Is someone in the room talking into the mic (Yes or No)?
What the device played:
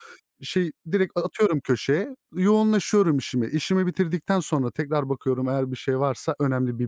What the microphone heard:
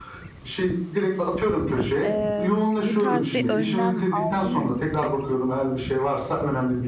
Yes